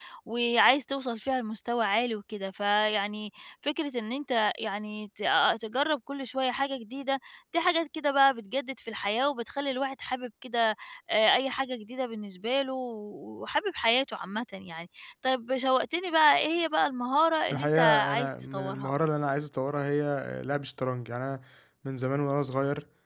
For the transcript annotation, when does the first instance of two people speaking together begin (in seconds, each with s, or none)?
17.5 s